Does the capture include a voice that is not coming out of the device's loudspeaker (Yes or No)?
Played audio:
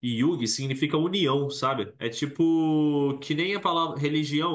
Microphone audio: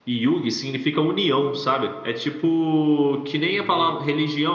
Yes